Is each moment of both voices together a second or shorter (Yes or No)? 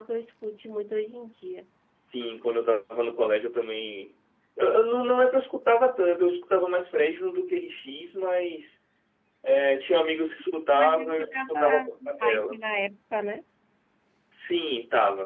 No